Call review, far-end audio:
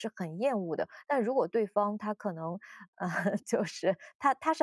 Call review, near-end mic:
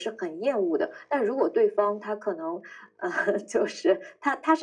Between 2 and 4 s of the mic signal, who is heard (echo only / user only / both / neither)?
echo only